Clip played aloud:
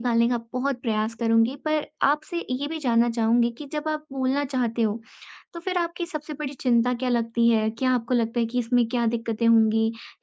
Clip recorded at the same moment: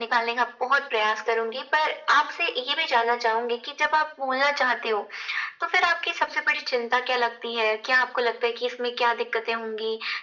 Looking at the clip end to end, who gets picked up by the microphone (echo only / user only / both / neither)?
echo only